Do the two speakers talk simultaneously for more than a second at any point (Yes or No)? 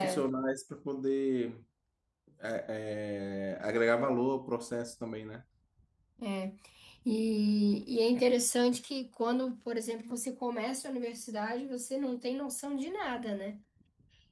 No